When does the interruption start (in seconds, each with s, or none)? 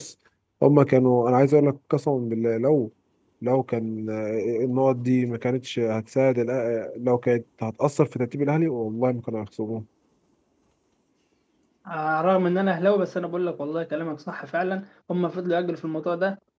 none